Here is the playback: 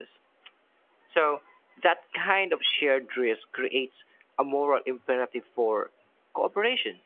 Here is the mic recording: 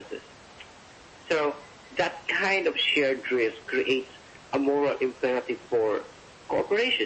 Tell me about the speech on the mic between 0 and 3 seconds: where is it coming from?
echo only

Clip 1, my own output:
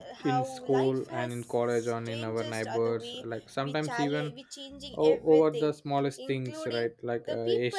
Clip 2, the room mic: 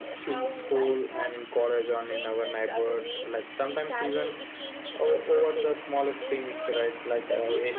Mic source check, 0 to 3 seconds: echo only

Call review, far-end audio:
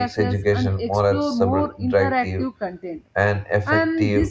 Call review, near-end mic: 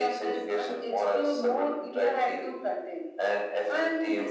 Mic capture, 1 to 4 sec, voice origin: echo only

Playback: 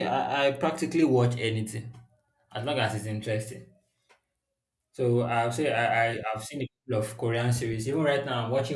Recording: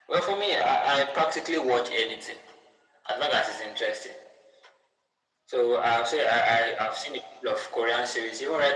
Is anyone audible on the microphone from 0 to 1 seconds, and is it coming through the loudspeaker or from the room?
echo only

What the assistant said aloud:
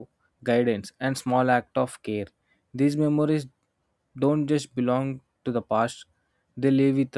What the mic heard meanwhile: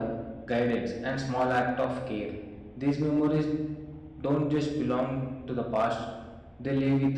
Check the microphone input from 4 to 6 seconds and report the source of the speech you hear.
echo only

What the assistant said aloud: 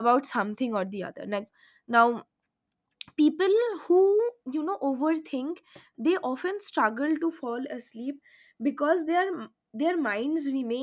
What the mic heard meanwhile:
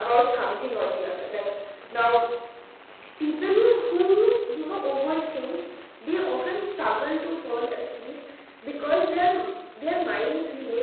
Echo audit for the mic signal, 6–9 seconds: echo only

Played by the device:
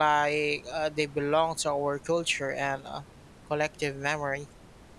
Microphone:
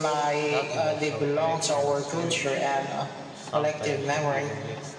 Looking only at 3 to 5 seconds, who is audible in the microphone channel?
both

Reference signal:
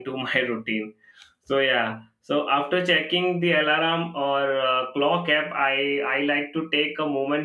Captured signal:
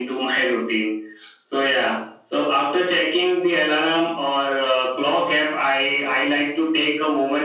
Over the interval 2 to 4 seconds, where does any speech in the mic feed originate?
echo only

